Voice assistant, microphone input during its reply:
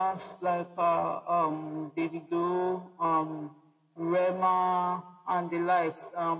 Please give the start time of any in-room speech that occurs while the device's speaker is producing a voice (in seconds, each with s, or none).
none